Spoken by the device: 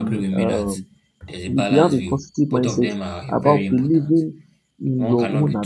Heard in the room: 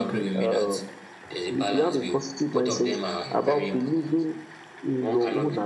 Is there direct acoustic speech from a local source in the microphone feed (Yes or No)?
No